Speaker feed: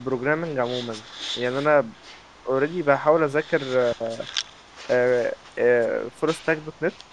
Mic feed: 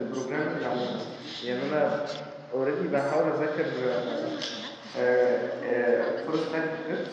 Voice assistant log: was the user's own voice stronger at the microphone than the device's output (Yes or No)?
No